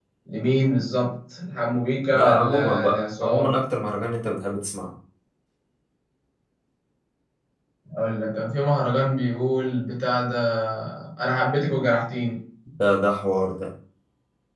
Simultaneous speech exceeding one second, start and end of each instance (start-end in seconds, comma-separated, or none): 2.1-3.5